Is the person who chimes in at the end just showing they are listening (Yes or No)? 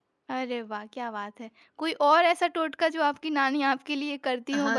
No